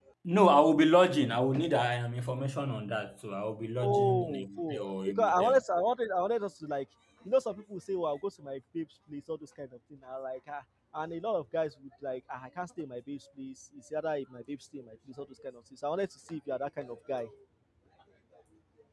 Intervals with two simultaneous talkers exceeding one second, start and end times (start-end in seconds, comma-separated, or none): 3.8-5.6